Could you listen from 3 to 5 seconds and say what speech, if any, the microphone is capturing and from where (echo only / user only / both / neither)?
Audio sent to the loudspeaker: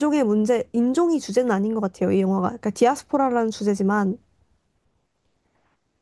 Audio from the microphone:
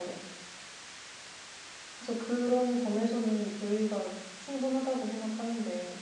user only